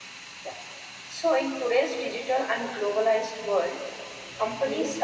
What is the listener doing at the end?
listening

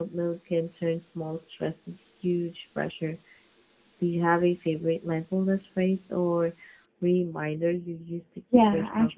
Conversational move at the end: taking over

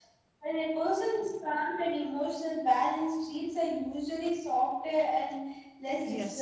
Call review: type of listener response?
taking over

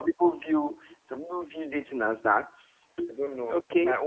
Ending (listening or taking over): taking over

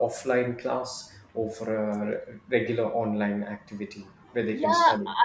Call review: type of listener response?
taking over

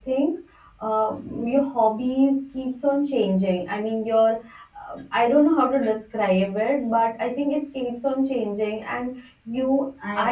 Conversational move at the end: listening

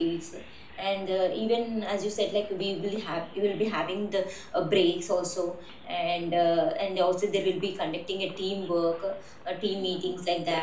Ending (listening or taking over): listening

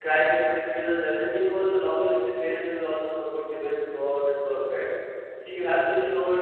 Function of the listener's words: listening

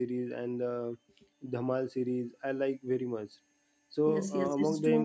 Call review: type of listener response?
taking over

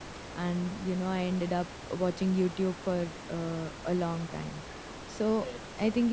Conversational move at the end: listening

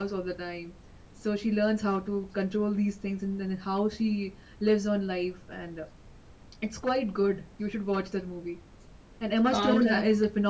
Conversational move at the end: listening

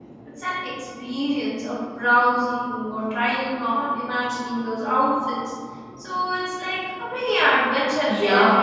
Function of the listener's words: taking over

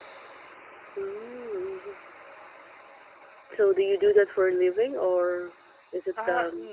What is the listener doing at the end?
taking over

